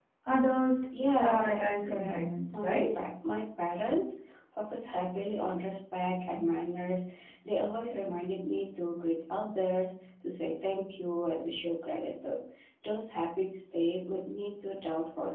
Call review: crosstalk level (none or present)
present